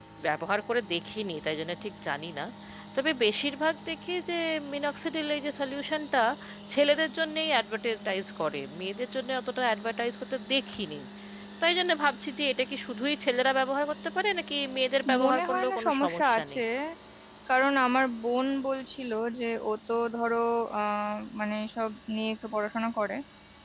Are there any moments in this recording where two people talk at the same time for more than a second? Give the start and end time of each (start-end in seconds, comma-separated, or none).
15.2-16.6